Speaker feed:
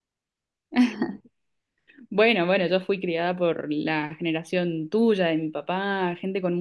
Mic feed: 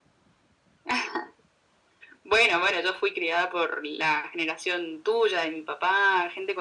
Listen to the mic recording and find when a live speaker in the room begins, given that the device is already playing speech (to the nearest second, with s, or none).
none